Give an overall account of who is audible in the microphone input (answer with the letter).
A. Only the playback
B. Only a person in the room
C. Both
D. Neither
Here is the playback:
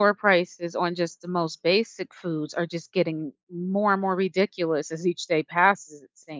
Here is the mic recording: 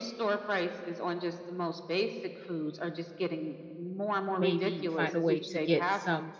C